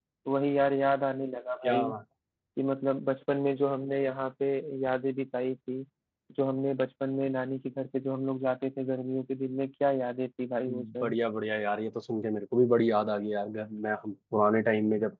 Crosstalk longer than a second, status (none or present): none